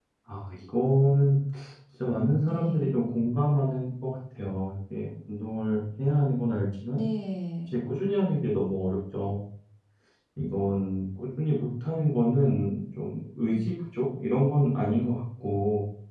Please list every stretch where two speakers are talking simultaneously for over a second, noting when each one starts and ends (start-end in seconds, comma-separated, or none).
none